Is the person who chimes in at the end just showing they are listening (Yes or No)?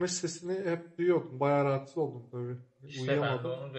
No